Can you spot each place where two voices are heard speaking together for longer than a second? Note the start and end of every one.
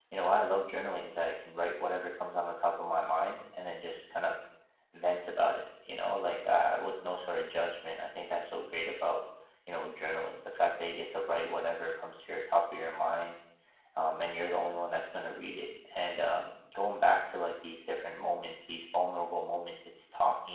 none

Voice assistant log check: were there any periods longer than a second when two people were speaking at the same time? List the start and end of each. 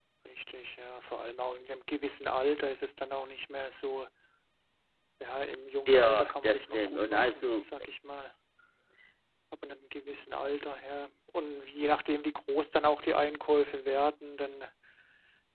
5.9-7.6

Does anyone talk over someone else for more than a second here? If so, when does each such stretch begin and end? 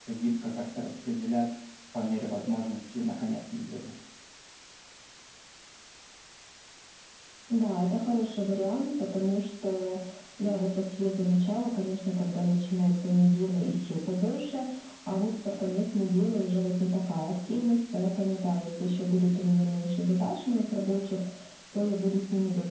none

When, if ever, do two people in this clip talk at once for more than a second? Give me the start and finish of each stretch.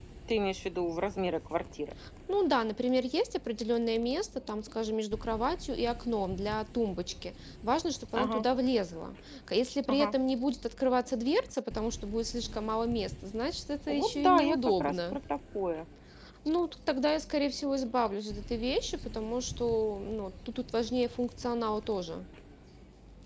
13.9-15.2

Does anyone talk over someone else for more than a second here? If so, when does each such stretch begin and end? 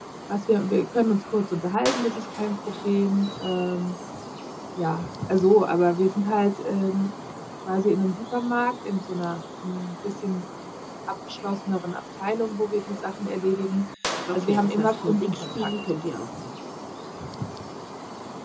14.3-15.7

